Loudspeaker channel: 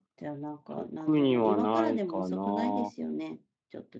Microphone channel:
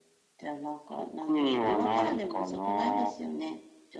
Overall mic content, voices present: echo only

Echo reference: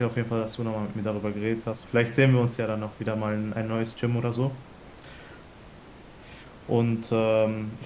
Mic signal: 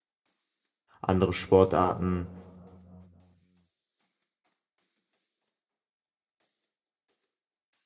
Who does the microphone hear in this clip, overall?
user only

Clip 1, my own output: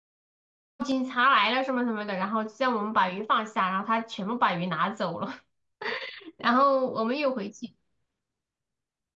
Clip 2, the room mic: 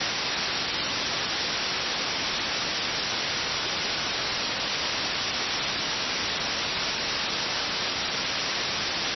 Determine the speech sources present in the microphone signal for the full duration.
neither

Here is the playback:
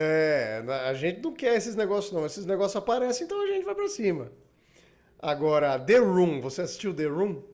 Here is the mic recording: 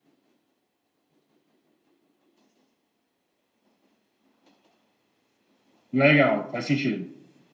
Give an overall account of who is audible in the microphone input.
user only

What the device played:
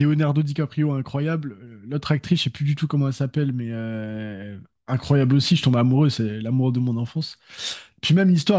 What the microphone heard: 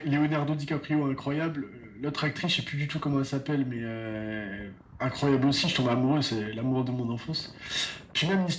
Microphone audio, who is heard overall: echo only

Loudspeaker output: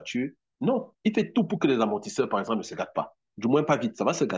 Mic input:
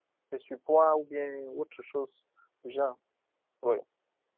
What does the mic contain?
user only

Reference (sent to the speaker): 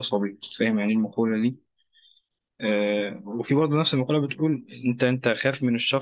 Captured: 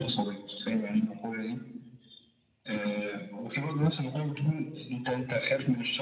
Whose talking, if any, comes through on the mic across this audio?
echo only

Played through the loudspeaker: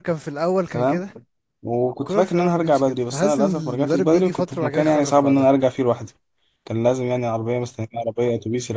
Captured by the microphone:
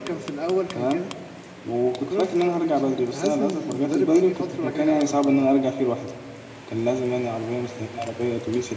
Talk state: echo only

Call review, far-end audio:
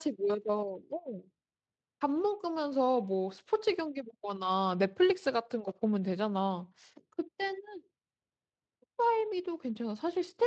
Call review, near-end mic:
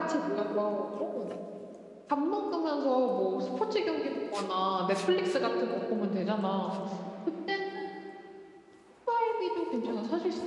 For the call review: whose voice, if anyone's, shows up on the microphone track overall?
echo only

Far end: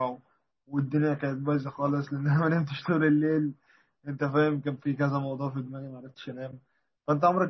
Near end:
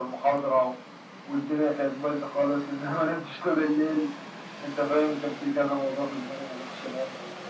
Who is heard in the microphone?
echo only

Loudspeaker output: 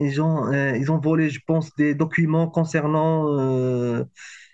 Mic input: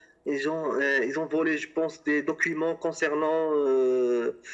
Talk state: echo only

